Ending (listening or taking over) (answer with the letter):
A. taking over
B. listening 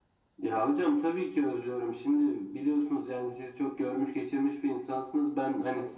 B